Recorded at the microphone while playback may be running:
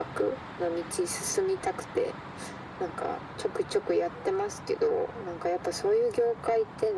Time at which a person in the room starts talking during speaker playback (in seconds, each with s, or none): none